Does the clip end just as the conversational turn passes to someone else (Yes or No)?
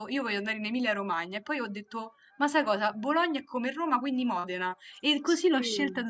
No